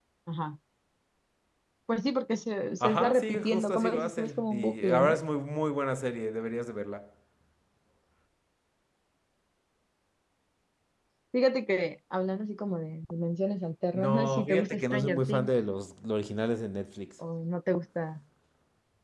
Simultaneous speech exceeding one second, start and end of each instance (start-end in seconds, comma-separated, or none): 2.8-5.2, 13.9-15.5